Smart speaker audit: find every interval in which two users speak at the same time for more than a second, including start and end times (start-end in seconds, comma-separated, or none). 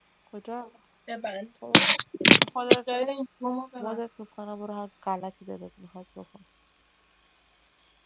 none